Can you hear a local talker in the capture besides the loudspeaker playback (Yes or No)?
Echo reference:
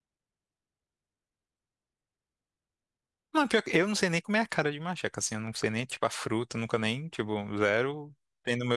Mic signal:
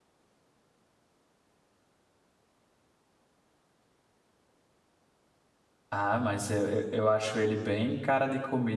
Yes